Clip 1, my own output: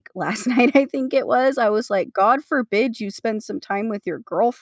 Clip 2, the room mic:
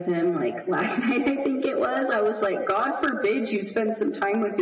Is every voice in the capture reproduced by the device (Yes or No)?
Yes